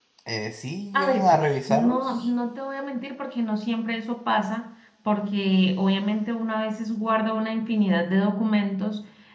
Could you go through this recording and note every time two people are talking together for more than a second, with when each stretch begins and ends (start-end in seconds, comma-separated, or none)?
0.9-2.3